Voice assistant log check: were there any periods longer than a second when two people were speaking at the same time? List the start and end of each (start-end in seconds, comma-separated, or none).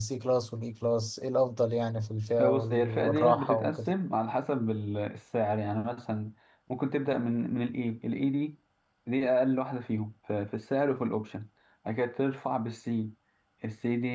2.4-3.9